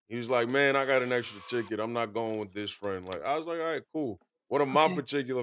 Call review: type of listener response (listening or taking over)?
listening